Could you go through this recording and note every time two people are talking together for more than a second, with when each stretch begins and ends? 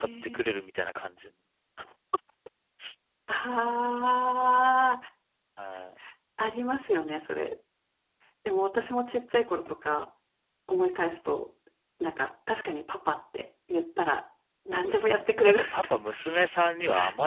14.8-16.0

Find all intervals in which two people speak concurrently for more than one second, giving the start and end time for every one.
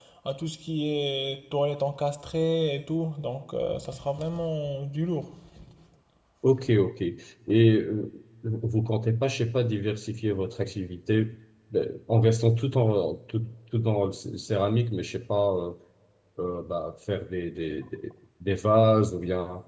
none

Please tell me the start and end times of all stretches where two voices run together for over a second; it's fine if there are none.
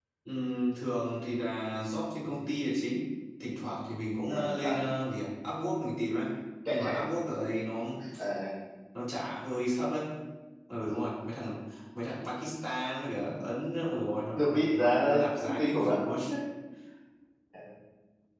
14.4-16.0

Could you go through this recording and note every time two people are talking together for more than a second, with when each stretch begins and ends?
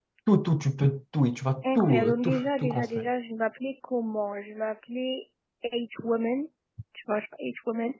1.8-3.1

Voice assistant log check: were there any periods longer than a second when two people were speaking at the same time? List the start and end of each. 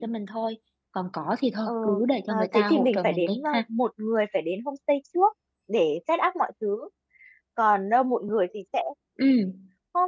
2.3-3.6

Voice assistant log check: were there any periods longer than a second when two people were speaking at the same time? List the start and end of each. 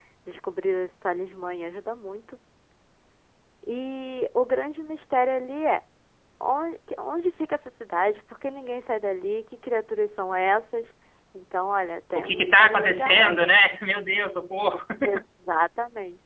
12.2-13.5

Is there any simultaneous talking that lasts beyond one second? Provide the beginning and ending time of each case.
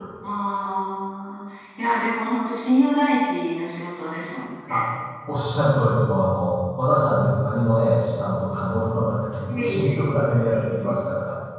none

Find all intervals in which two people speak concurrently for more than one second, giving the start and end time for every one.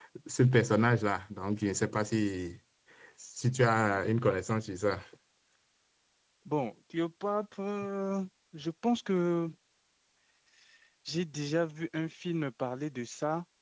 none

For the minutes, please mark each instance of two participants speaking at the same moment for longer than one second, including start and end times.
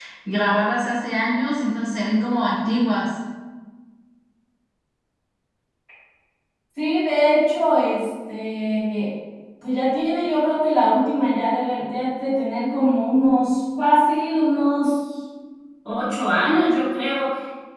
none

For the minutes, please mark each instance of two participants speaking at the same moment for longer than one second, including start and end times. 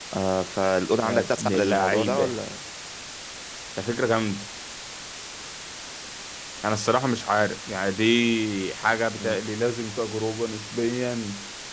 1.0-2.3

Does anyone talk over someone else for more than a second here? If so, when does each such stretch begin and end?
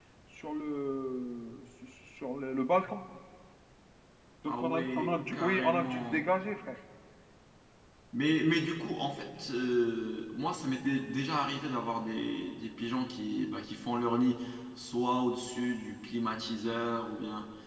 4.5-6.3

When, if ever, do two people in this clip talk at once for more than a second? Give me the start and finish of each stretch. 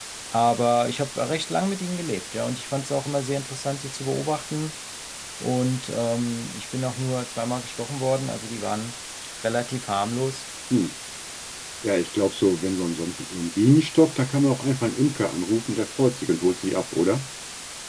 none

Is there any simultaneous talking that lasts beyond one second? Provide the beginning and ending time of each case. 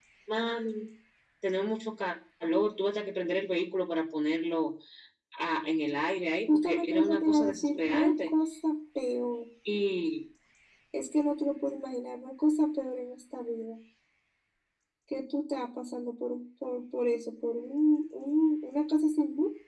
6.5-8.3

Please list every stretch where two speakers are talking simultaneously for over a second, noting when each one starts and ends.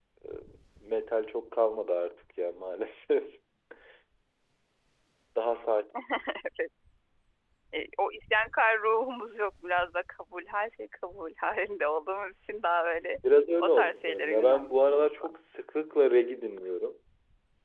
13.6-15.3

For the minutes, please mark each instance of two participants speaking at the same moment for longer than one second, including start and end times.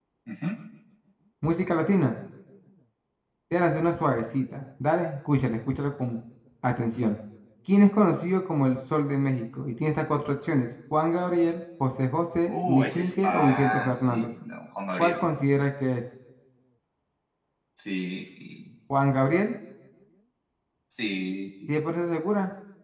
12.5-14.3

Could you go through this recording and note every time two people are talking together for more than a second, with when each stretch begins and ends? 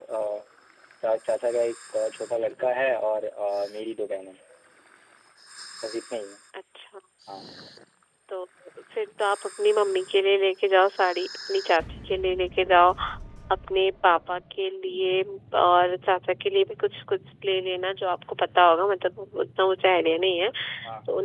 none

